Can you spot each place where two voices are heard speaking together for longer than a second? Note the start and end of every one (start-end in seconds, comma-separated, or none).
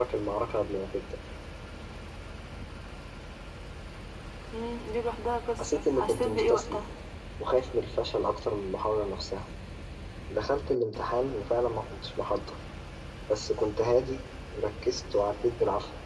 5.6-6.8